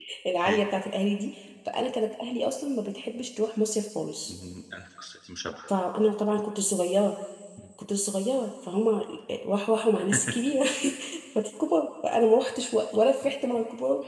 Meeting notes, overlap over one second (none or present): none